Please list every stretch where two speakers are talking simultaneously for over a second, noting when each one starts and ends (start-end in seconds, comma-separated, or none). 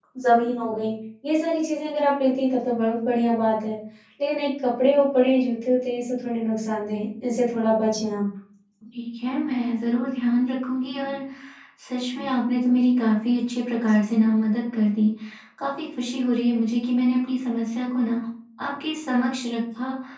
none